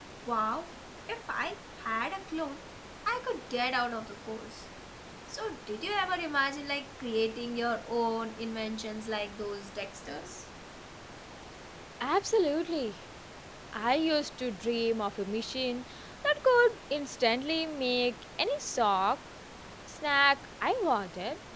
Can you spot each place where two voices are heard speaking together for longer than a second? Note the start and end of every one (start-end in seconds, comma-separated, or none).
none